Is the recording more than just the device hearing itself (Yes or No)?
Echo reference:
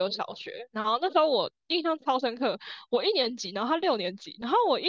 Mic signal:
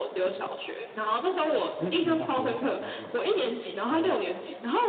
Yes